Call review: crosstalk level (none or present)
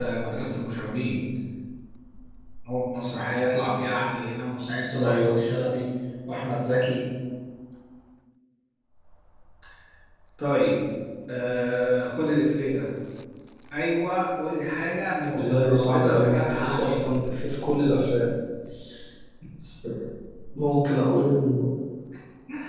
present